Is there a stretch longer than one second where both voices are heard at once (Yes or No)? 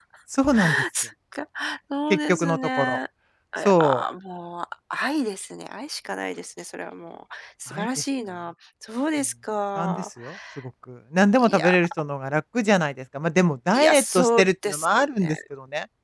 Yes